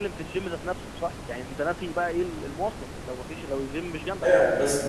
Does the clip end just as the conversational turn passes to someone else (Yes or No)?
Yes